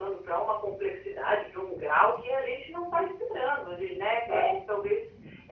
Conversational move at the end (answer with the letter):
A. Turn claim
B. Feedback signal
B